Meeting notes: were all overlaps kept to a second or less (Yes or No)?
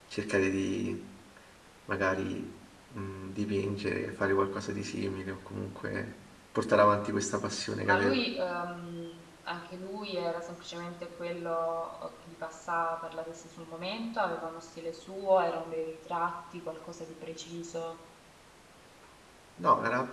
Yes